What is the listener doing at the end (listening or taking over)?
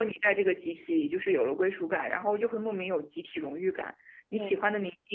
listening